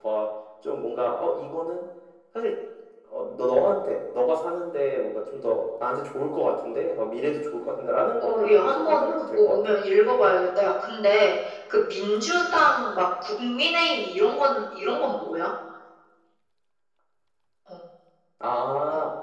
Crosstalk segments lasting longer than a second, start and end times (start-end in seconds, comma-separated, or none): 8.2-9.6